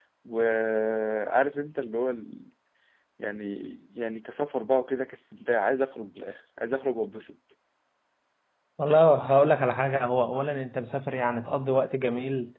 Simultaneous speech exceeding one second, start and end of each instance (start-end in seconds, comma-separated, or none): none